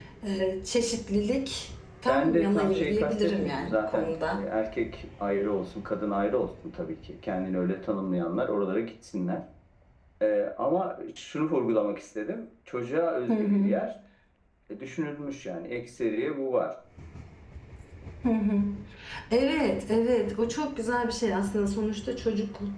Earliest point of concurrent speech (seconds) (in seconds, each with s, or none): 2.1 s